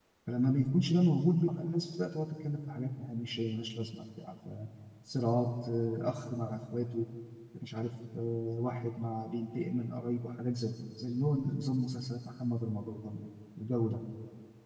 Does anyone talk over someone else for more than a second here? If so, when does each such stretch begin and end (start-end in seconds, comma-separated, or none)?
none